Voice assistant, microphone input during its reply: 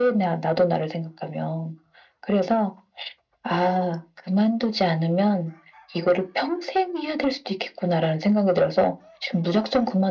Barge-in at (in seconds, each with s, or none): none